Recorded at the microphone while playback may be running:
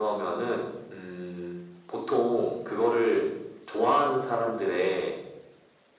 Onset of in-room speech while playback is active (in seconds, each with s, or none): none